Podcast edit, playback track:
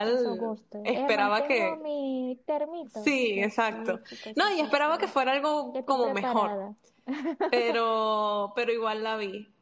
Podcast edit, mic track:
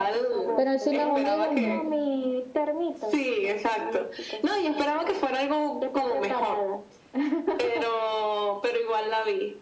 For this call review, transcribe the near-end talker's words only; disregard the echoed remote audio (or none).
pero en Cines Unidos no.